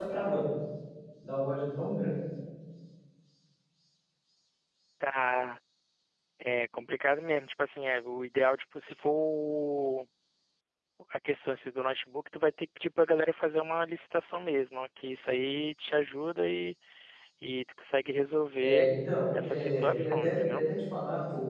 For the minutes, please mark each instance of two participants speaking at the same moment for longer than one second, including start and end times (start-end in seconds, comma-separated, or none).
19.3-20.6